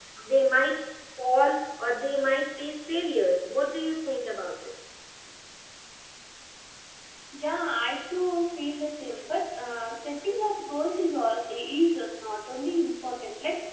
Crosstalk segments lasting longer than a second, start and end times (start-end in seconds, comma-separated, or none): none